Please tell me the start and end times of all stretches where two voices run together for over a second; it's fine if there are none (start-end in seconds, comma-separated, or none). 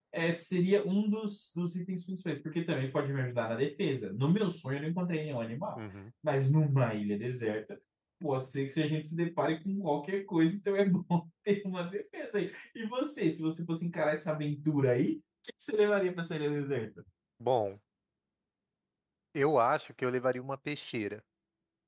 none